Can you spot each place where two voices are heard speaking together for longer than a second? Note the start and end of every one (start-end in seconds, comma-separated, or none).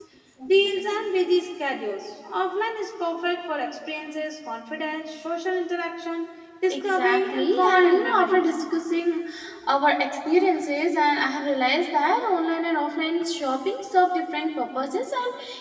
6.7-8.5